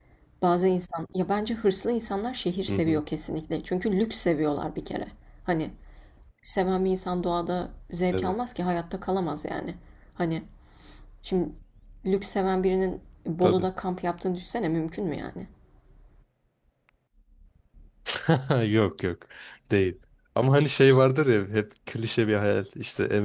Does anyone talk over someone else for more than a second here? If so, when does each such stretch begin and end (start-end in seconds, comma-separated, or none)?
none